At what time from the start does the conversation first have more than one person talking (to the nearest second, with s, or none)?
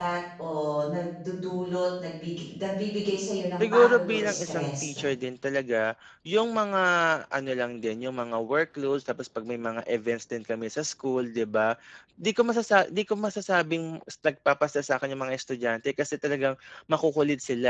4 s